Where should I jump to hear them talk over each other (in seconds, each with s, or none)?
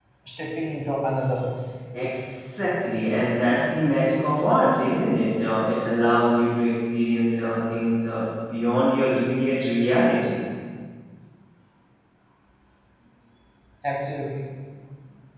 none